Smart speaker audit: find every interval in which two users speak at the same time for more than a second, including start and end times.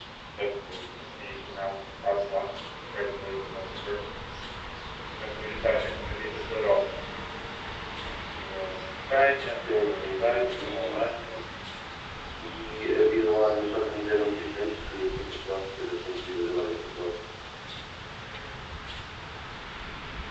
9.5-11.1

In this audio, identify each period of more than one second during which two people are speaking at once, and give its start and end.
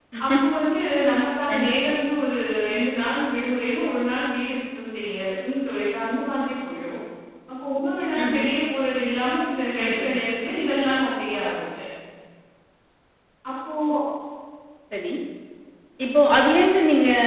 none

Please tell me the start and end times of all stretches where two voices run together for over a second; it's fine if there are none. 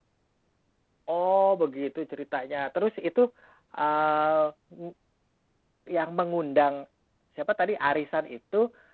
none

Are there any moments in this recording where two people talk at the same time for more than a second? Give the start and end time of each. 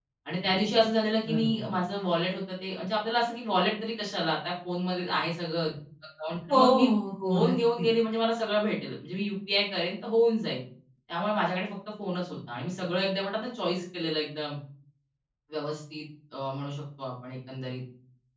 none

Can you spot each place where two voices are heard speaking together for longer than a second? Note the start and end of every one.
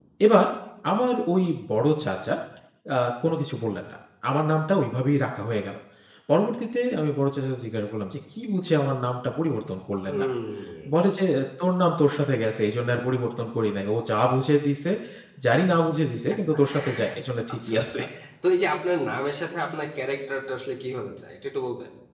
none

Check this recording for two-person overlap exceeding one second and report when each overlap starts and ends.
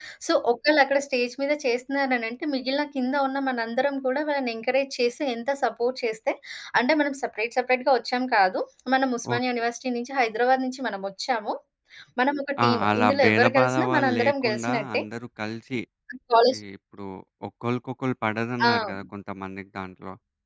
12.6-15.0

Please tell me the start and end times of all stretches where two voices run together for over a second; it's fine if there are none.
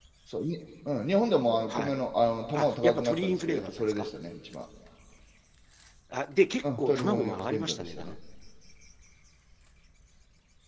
2.5-4.1, 6.8-8.1

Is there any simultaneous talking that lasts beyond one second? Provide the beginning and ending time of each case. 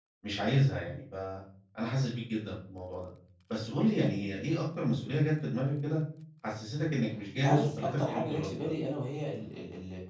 7.3-8.7

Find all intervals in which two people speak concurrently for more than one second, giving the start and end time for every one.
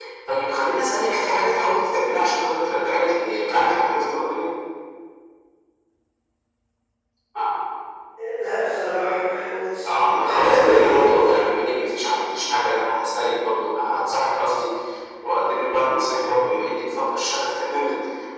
10.3-11.5

